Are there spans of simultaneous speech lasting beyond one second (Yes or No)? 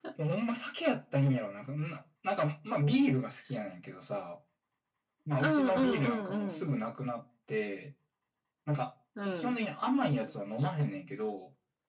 Yes